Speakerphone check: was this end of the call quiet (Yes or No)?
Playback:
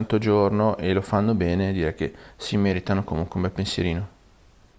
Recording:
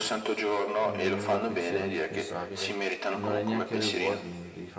No